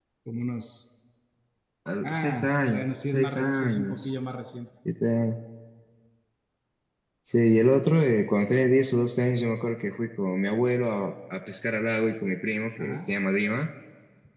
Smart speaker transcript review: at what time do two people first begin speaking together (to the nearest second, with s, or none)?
2 s